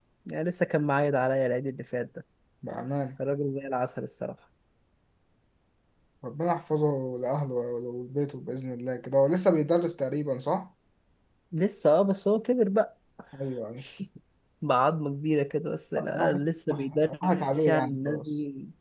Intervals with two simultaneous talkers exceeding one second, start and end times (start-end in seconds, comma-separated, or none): 16.2-18.2